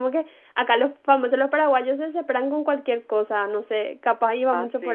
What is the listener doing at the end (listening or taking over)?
taking over